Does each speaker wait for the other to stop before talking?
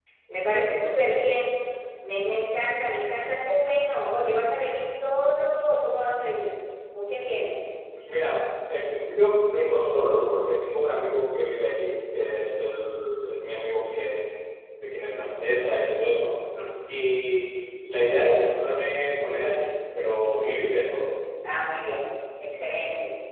Yes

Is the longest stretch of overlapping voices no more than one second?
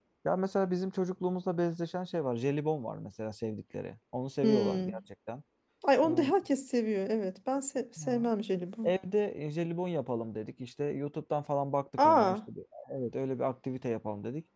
Yes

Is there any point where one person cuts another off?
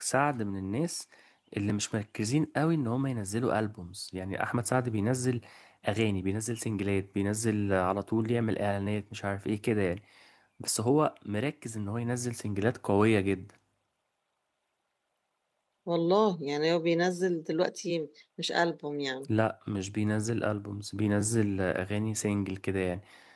No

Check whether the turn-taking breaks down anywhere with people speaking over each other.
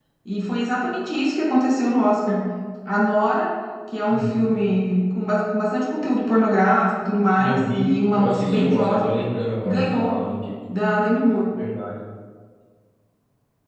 Yes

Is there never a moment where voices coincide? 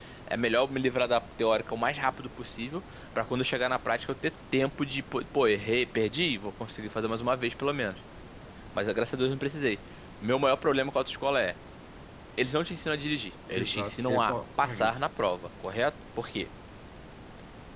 No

